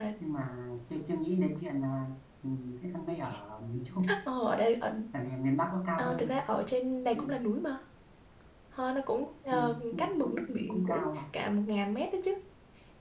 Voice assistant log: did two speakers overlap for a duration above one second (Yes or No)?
Yes